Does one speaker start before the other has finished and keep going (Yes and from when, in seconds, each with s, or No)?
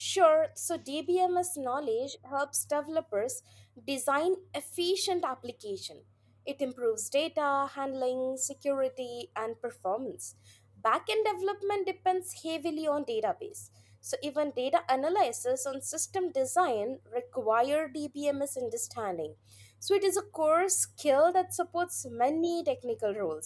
No